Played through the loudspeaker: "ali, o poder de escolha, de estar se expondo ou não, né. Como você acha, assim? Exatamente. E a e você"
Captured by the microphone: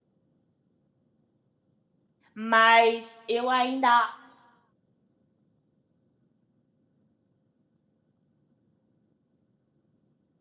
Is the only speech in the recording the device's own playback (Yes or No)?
No